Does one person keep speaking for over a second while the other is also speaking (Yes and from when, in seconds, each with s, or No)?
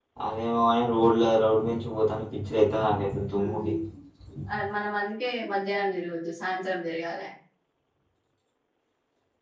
No